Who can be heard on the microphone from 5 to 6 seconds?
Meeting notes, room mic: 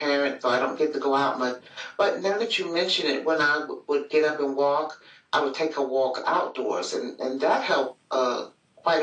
echo only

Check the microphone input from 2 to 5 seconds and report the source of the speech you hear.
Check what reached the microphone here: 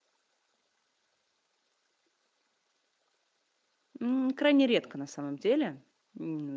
user only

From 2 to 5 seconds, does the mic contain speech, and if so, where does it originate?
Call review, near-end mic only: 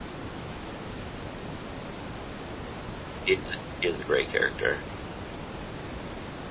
user only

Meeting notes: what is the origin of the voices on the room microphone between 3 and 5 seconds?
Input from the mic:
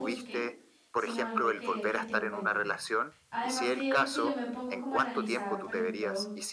both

